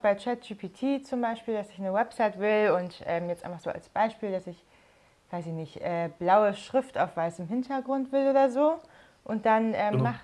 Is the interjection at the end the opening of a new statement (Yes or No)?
No